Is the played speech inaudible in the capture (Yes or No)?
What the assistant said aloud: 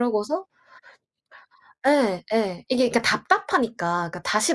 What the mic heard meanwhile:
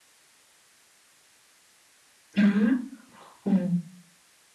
Yes